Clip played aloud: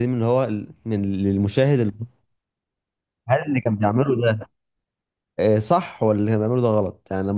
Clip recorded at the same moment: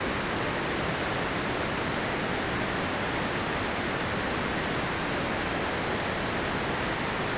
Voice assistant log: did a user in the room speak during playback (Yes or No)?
No